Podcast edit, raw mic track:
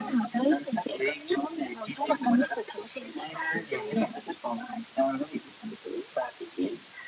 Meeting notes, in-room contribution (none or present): none